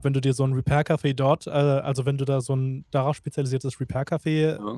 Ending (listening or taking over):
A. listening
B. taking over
A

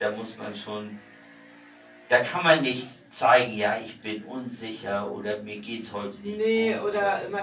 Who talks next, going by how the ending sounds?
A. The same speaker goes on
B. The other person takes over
B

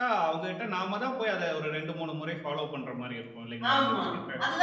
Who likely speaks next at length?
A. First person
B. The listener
B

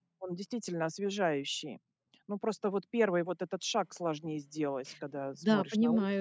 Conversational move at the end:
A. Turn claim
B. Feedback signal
A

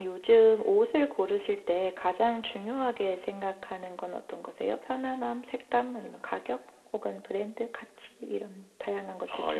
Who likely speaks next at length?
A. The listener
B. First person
A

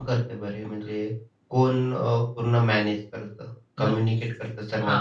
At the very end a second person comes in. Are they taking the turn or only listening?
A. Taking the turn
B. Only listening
A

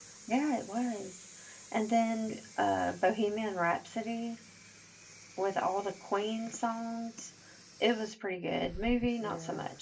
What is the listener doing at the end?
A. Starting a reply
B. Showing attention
A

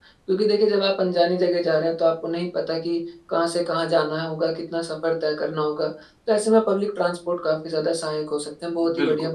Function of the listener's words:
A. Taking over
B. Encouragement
B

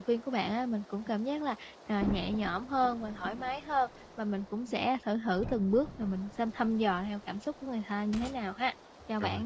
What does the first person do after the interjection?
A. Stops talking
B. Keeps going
A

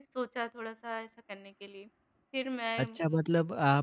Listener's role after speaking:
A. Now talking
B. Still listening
A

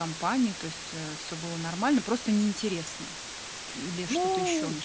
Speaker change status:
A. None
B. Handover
B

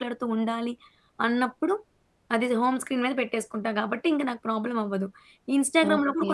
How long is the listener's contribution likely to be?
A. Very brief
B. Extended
A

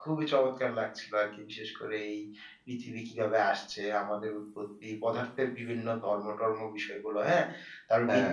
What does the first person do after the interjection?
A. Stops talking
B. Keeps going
B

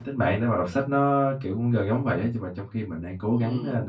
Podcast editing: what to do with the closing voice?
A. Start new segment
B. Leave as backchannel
A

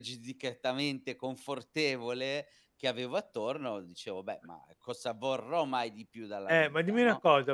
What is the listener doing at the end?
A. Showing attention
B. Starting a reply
B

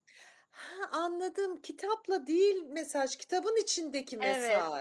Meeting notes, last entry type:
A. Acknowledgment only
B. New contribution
B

